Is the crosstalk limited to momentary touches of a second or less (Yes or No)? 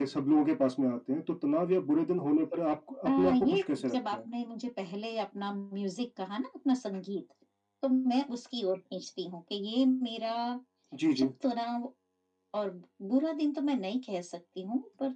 No